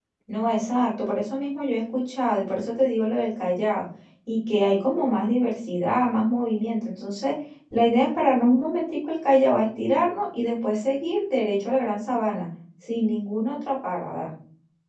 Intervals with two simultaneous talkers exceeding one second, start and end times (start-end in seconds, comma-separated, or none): none